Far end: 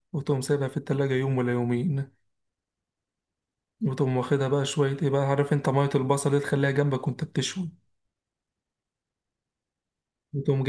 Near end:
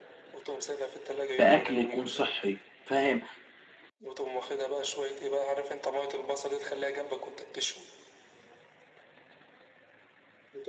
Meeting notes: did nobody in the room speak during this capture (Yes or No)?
No